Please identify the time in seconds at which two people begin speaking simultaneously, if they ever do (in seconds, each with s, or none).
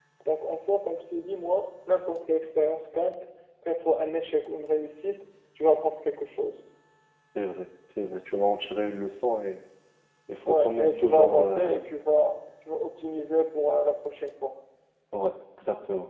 10.5 s